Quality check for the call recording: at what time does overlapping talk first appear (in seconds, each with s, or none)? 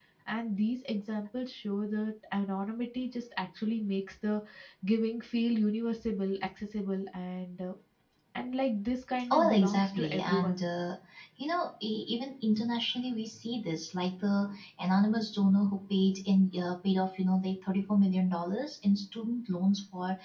9.2 s